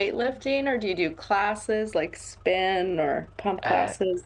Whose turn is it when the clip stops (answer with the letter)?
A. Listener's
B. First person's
A